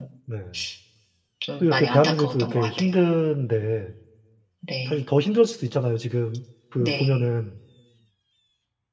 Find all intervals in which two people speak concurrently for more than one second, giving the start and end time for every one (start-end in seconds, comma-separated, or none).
1.6-2.9